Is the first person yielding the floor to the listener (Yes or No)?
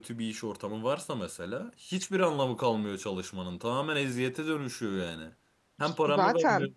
No